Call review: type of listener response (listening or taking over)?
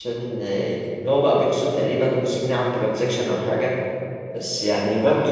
listening